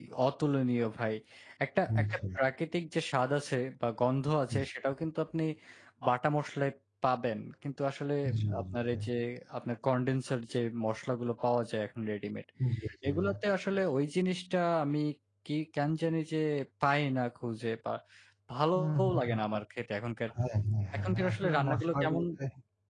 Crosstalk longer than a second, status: present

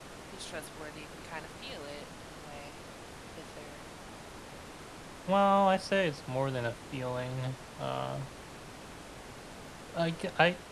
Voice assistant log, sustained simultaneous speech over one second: none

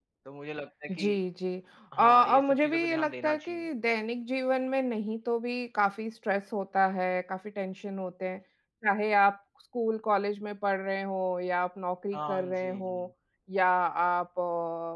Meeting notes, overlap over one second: present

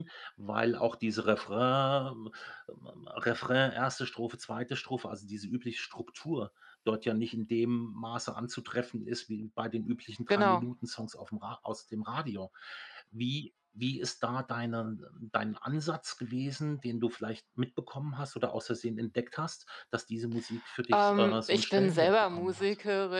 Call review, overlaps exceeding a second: present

